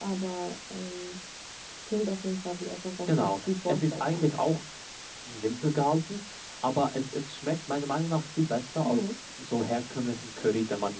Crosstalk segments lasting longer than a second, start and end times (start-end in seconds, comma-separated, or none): 3.1-4.3